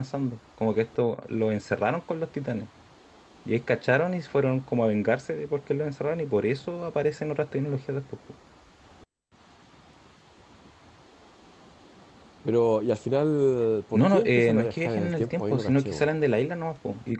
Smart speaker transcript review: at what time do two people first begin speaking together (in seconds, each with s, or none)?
13.9 s